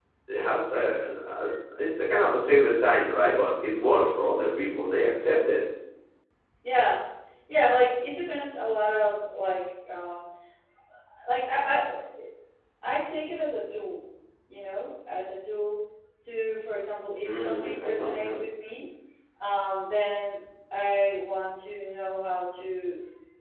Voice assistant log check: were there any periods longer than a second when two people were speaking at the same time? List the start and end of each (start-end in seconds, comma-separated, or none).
17.2-18.5